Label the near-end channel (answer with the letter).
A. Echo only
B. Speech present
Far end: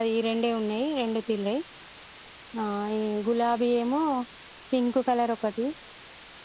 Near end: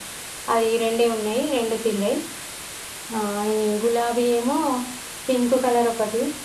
A